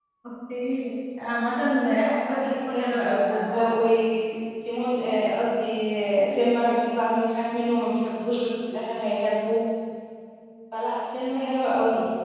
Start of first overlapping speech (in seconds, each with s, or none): 2.0 s